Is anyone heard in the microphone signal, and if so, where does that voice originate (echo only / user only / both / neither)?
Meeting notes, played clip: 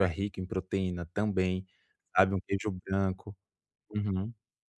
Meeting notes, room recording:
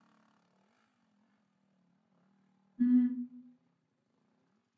user only